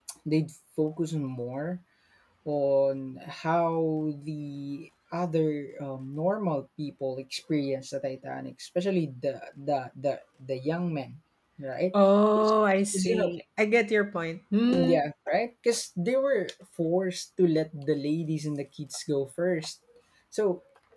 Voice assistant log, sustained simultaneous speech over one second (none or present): none